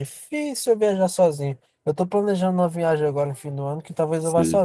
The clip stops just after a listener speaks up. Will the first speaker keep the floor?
Yes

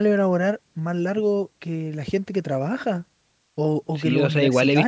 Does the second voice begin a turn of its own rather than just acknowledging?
Yes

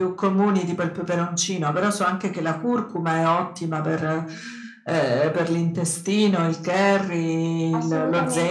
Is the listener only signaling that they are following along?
No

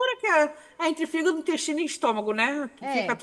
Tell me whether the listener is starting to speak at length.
Yes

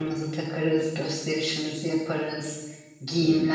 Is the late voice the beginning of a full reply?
No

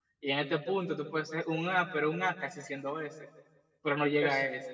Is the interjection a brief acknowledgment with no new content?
Yes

